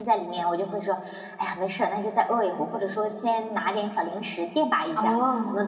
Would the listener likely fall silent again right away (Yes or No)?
Yes